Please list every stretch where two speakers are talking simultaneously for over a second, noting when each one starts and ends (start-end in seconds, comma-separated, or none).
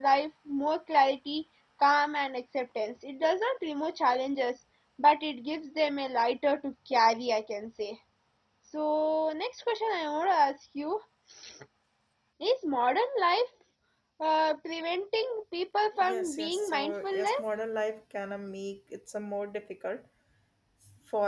16.0-17.4